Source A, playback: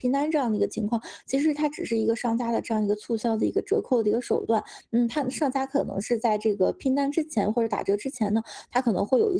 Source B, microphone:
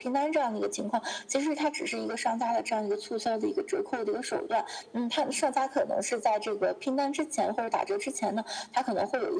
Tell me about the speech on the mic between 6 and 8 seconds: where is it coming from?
echo only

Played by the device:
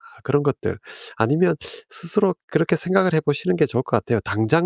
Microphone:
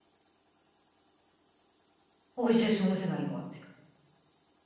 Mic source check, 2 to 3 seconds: user only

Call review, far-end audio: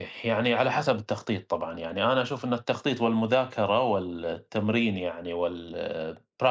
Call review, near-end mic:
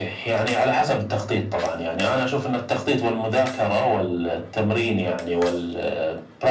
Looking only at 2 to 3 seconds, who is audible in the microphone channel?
echo only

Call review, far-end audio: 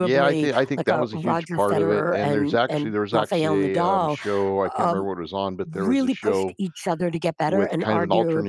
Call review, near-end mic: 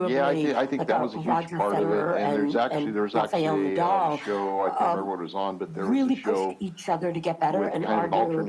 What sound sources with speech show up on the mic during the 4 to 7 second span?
echo only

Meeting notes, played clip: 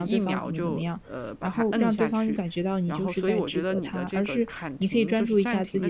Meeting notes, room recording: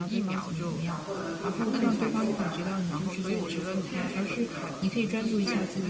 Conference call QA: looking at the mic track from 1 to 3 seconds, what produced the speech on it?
both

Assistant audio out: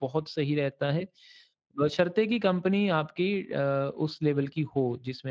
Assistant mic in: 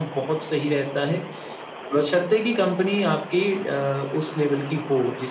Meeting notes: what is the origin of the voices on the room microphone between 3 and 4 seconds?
echo only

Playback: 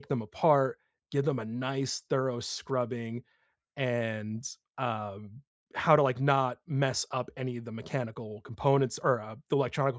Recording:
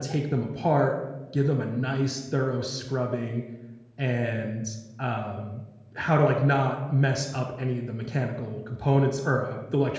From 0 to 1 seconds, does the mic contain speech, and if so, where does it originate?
echo only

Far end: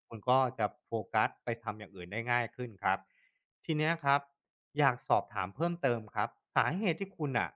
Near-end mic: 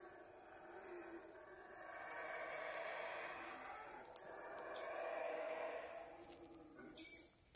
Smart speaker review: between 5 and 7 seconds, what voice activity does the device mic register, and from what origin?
neither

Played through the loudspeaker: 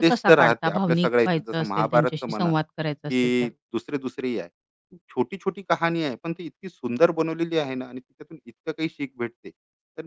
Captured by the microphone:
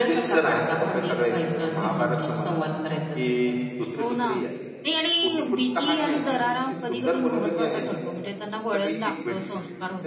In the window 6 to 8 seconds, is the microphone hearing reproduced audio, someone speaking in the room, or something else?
both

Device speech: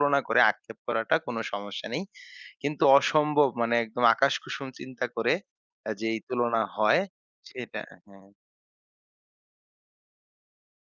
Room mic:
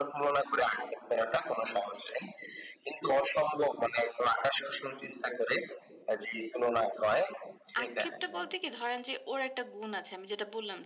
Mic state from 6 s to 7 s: echo only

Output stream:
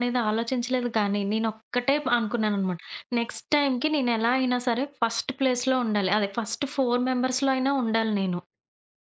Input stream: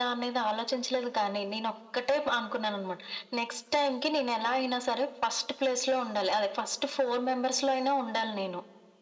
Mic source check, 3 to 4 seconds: echo only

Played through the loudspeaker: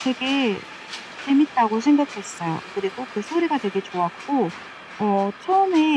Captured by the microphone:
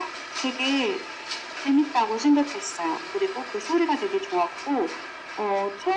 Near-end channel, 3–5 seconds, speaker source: echo only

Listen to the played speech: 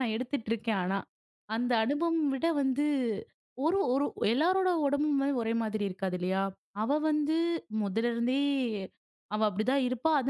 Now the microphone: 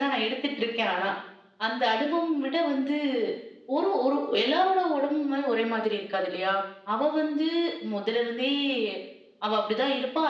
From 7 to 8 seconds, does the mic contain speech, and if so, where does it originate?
echo only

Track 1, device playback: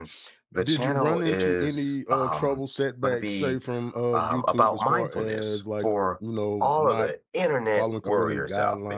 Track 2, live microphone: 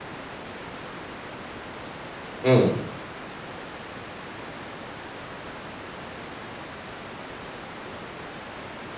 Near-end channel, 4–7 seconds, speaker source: neither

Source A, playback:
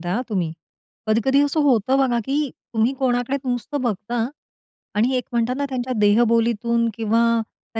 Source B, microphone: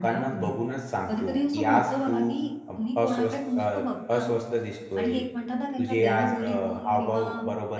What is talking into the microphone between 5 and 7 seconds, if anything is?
both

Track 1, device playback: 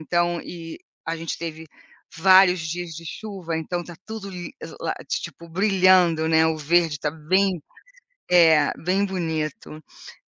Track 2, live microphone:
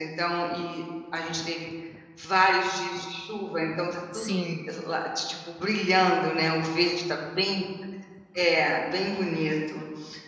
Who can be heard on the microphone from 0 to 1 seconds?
echo only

